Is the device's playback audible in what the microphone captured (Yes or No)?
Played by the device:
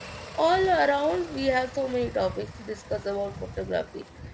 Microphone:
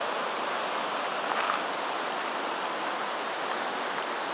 No